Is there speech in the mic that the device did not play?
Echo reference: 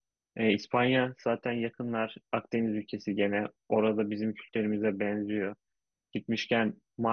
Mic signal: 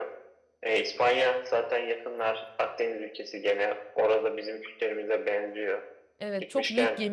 Yes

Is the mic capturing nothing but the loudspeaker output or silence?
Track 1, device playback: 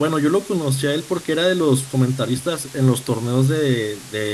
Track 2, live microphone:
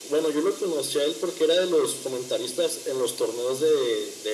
Yes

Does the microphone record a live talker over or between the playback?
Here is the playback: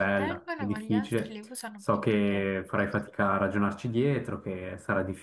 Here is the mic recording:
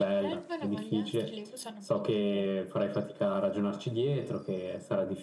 No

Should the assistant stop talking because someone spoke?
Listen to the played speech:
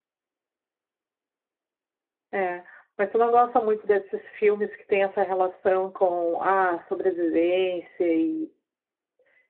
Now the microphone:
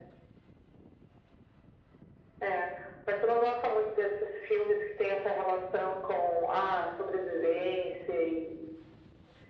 No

